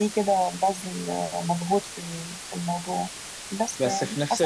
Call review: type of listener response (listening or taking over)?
taking over